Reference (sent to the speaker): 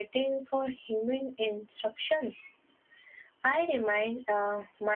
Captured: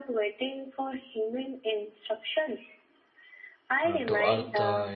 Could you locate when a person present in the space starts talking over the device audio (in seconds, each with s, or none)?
3.8 s